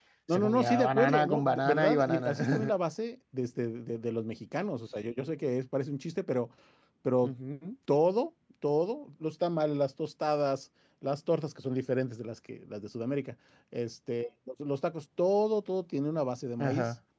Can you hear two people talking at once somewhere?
Yes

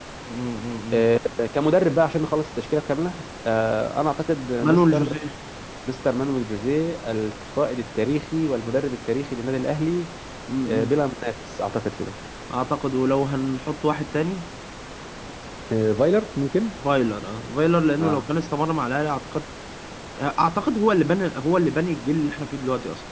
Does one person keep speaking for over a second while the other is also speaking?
No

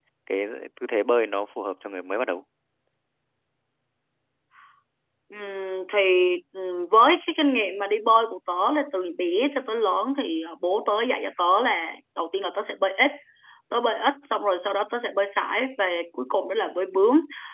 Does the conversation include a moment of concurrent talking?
No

